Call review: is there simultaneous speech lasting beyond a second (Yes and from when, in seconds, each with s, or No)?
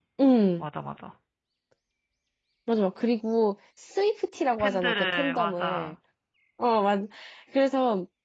Yes, from 4.6 s